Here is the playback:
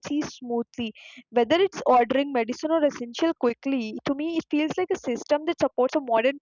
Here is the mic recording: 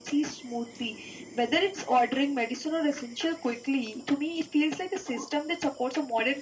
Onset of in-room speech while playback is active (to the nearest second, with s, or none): none